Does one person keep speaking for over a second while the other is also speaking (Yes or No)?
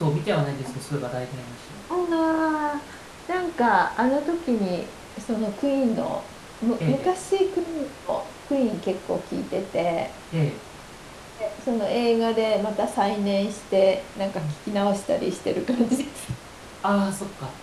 No